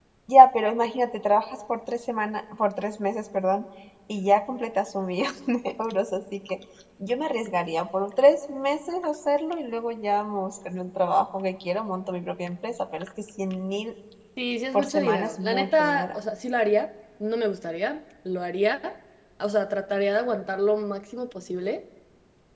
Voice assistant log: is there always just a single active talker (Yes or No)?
No